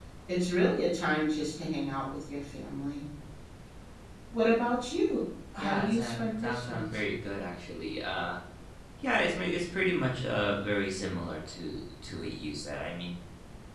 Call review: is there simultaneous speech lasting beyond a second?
Yes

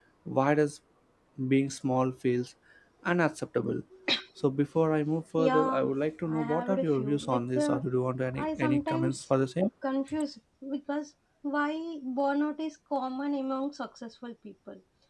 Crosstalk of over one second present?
Yes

